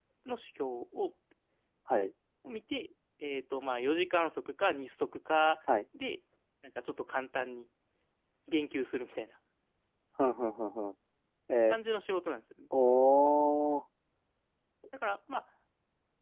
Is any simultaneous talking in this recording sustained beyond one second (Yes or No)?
No